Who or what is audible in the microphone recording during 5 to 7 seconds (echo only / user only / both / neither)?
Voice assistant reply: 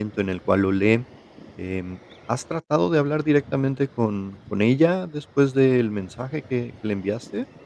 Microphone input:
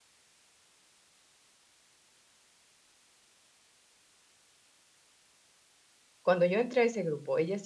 user only